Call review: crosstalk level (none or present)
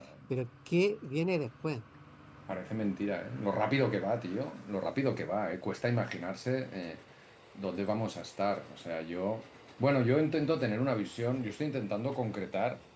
none